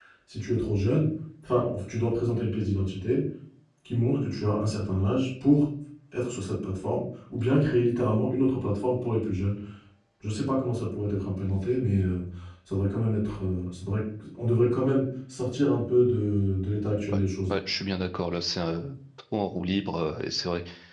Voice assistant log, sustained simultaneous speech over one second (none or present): none